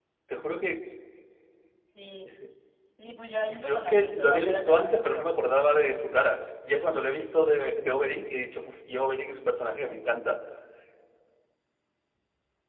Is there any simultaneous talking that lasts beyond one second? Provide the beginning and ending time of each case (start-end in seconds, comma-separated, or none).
3.6-5.5